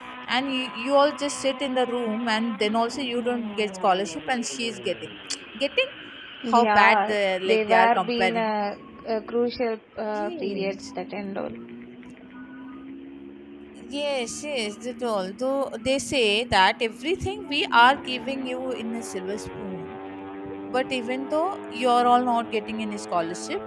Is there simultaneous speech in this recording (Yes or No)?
Yes